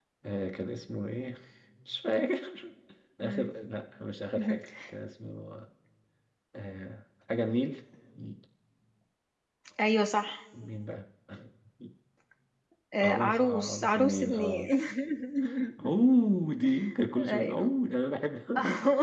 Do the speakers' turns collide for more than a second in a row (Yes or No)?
Yes